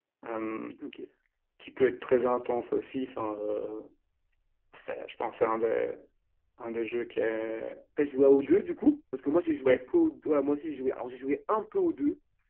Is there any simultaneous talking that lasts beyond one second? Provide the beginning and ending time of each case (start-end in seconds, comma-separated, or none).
none